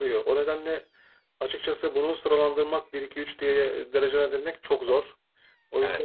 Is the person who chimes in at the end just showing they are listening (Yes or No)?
No